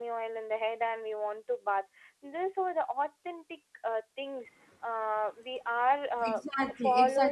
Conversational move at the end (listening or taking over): taking over